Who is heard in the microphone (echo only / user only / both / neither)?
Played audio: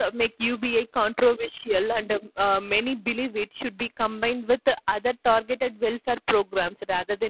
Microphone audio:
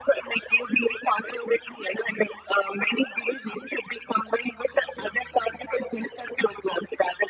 echo only